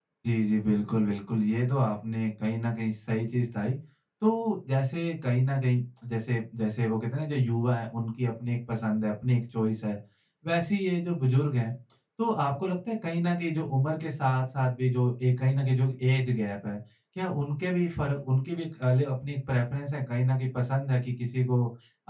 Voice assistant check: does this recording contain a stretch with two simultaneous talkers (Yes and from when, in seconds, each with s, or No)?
No